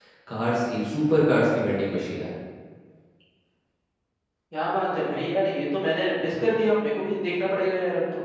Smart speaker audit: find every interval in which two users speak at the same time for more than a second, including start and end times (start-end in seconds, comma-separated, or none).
none